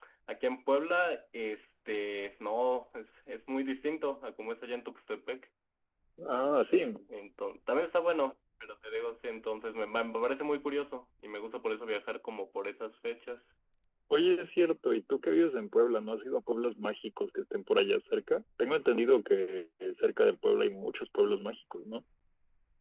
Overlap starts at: none

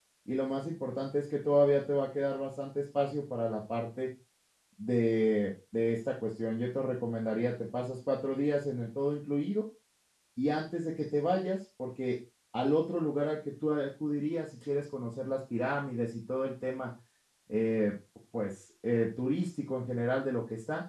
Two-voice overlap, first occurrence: none

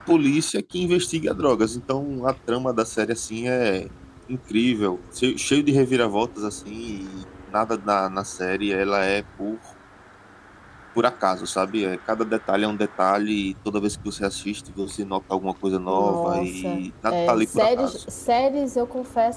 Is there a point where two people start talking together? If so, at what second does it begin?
16 s

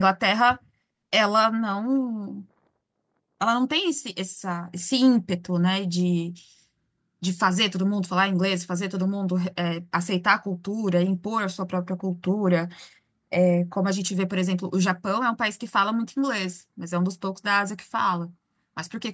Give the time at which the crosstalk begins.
none

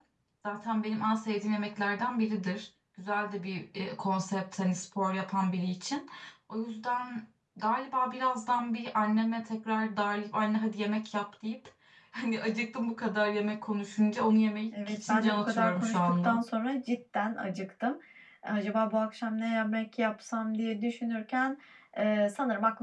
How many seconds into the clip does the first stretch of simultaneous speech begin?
15 s

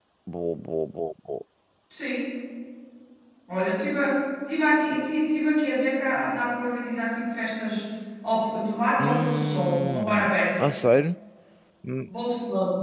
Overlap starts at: 9 s

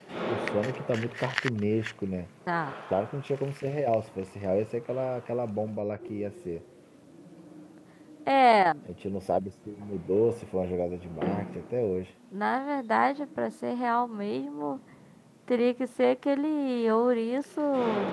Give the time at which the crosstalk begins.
none

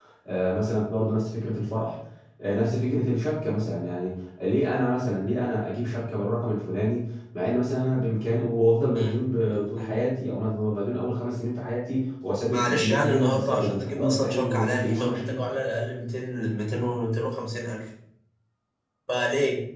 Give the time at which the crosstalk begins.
9 s

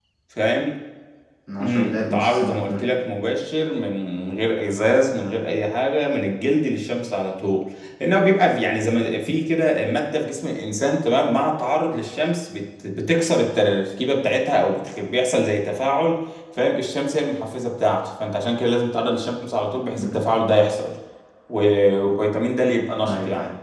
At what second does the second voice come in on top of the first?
2 s

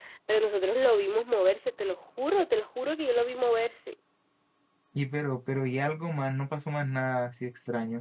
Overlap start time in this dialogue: none

